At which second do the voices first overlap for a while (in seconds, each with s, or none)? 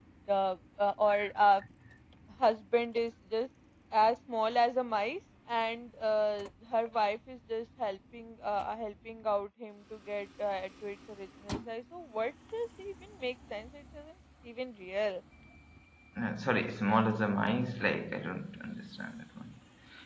none